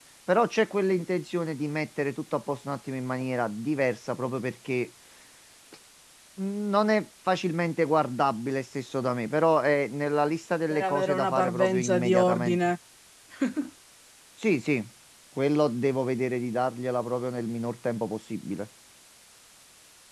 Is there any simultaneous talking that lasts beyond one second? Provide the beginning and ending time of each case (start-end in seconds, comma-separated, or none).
10.7-12.6